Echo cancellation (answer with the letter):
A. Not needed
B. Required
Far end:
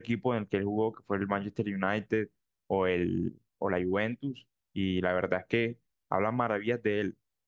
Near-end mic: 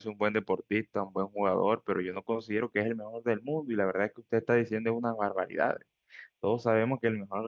A